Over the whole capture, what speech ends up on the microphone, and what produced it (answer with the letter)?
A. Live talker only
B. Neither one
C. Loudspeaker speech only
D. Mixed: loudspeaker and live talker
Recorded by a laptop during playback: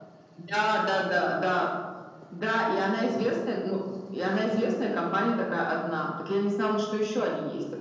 C